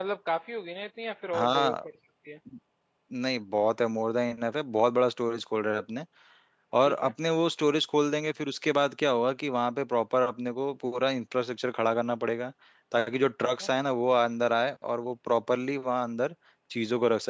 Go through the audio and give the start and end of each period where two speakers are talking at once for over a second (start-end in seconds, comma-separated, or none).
none